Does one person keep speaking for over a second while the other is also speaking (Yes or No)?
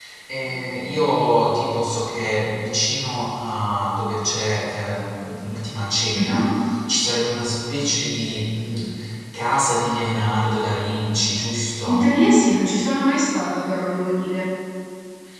No